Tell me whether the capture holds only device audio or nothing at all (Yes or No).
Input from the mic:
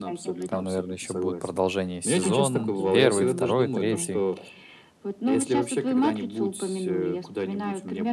No